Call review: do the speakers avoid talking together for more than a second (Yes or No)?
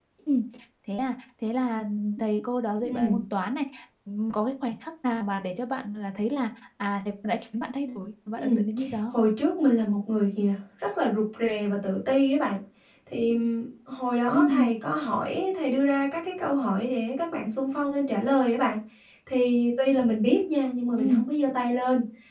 Yes